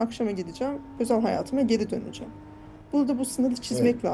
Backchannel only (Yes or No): Yes